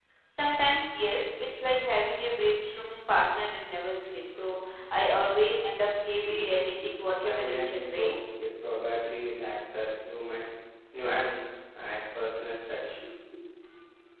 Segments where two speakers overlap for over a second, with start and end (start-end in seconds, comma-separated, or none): 7.2-8.4